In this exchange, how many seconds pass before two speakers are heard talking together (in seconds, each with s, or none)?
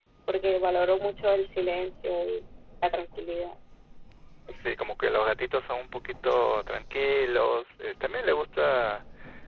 none